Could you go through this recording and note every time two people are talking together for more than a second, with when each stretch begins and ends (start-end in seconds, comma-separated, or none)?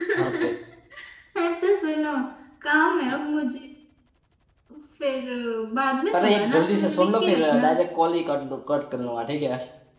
6.2-7.7